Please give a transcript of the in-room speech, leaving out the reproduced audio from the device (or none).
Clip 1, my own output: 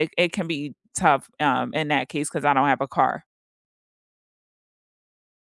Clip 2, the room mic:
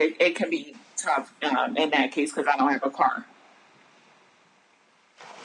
none